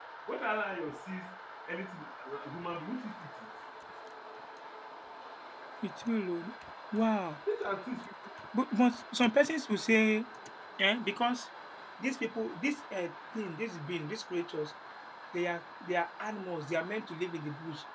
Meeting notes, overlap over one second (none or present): none